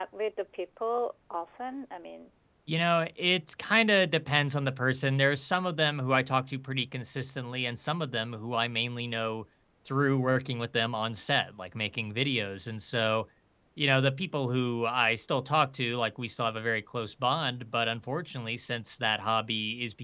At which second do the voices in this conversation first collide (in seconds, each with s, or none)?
none